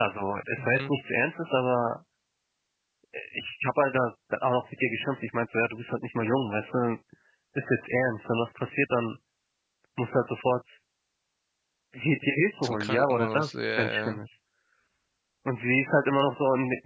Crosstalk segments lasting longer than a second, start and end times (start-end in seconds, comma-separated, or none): 12.6-14.2